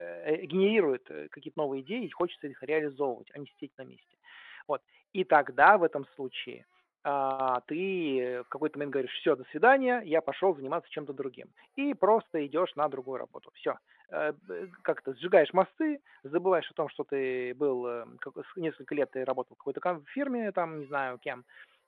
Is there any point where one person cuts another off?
No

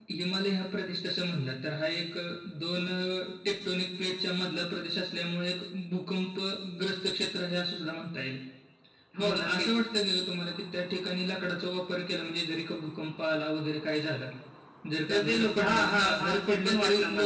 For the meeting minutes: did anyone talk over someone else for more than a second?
Yes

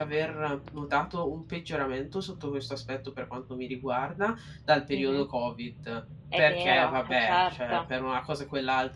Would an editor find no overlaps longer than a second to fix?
No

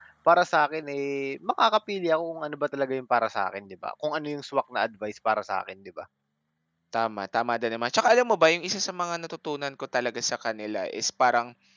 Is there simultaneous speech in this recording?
No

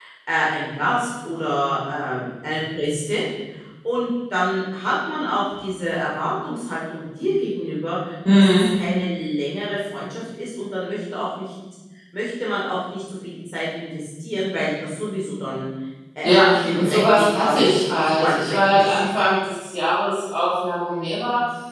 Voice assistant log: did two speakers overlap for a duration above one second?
Yes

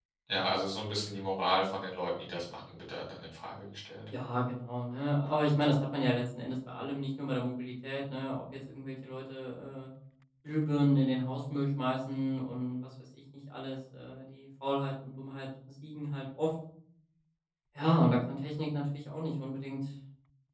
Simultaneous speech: No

